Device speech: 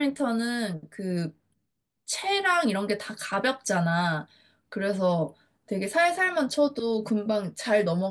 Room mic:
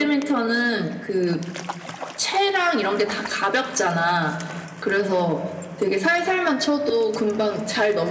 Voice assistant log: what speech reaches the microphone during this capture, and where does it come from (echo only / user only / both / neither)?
echo only